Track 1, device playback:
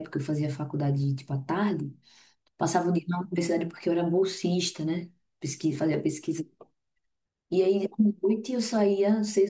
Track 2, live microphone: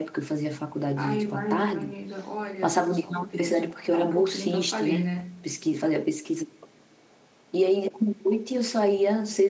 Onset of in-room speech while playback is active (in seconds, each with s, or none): 0.9 s